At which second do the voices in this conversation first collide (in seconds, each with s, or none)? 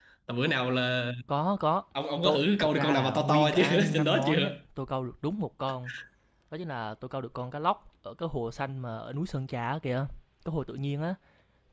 2.2 s